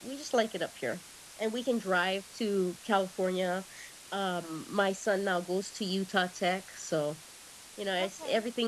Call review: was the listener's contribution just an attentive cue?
Yes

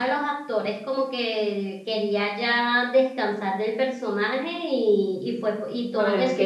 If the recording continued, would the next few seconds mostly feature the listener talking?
Yes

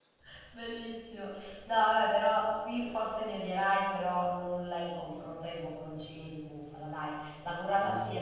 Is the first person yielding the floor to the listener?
No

